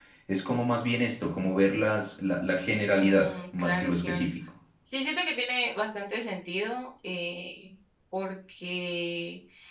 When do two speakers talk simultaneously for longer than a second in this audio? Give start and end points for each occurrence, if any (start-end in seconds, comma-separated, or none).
3.0-4.3